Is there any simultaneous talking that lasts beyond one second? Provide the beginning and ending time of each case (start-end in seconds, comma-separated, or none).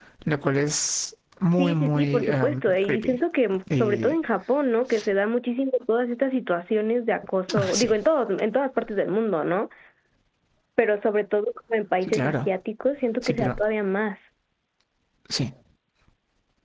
1.5-3.2